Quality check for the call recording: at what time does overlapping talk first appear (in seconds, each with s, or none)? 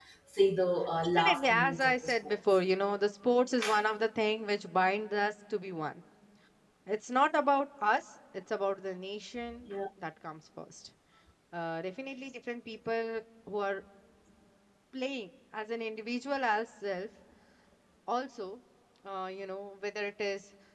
1.1 s